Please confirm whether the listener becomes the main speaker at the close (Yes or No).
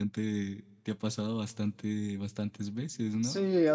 Yes